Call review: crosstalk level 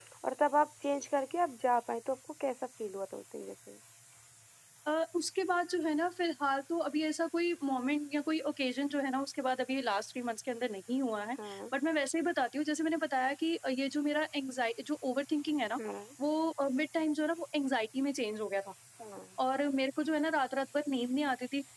none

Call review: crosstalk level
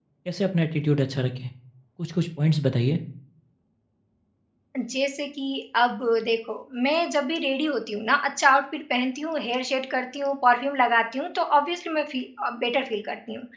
none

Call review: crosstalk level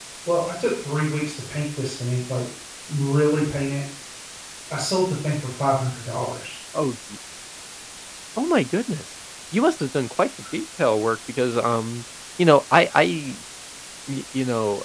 none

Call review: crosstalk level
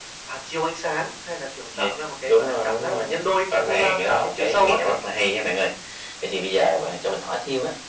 present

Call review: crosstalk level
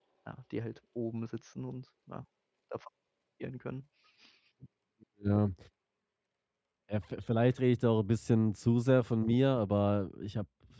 none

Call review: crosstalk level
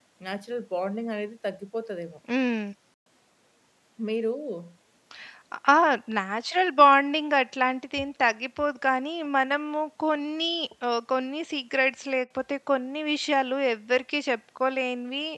none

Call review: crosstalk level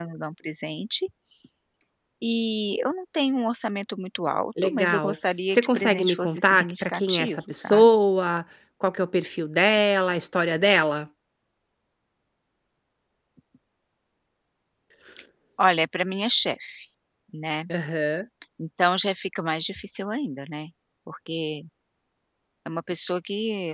present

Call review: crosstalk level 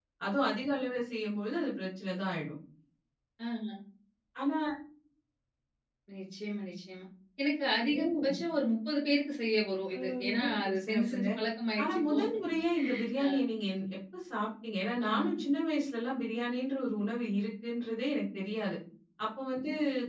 present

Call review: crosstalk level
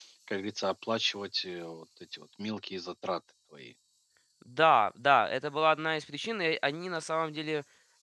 none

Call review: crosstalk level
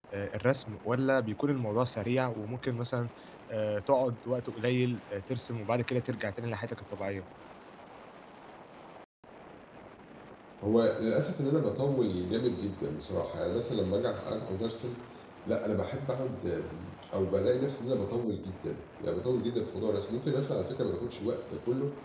none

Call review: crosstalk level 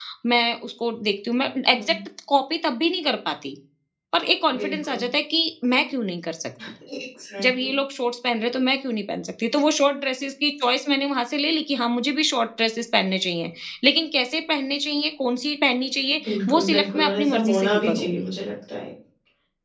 present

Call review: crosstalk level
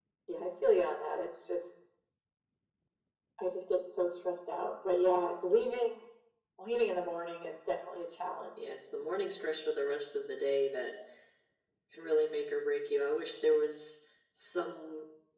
none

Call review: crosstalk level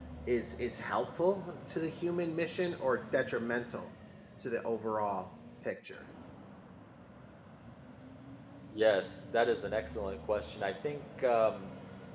none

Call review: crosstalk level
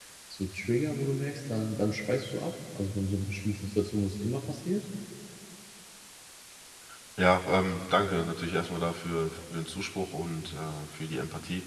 none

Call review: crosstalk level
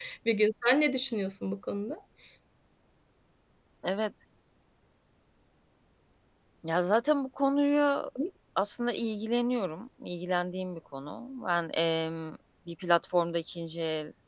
none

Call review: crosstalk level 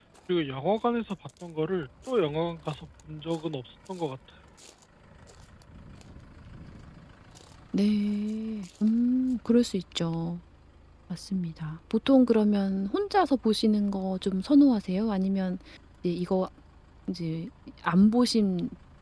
none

